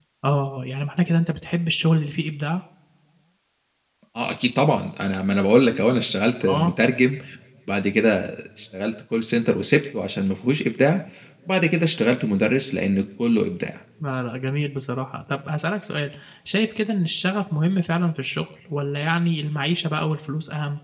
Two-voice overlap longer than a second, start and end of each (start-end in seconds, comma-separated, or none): none